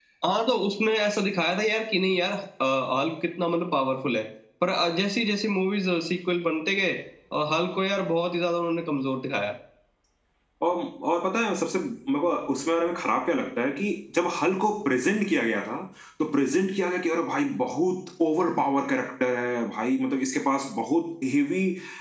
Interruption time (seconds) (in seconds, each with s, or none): none